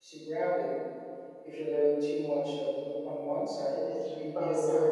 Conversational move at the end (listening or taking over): taking over